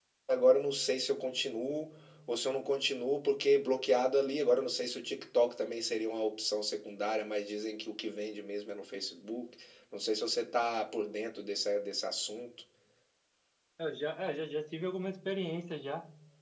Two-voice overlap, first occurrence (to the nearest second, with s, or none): none